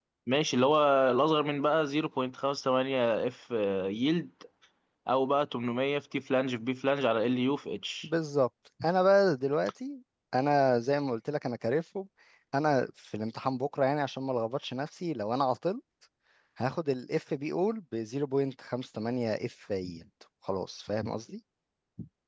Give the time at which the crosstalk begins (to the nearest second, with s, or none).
none